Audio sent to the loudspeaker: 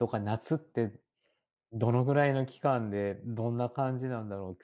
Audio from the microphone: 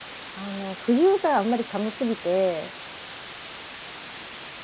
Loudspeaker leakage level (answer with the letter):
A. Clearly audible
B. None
B